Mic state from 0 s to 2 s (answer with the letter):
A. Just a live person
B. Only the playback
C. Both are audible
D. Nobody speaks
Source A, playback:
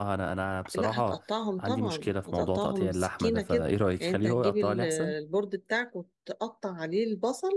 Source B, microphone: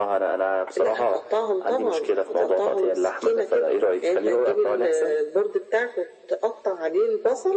B